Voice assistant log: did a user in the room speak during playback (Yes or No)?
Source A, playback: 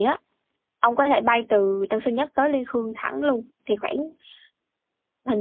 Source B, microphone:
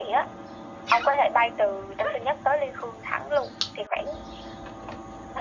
No